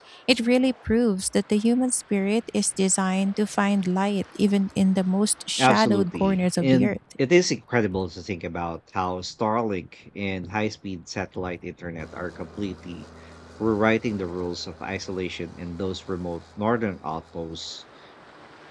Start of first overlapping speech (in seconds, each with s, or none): 5.6 s